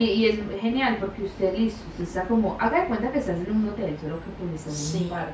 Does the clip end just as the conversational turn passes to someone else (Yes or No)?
No